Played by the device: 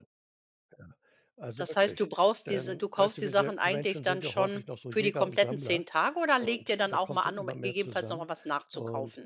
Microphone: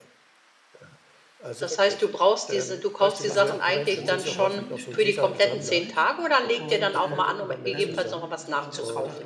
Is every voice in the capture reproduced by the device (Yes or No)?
No